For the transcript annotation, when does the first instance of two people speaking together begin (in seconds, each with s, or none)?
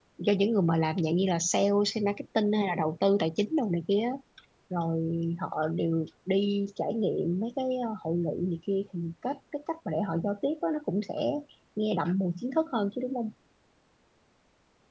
none